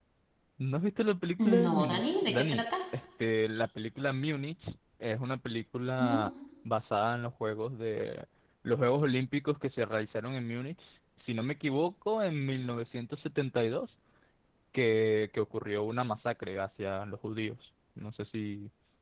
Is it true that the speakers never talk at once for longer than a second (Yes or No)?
No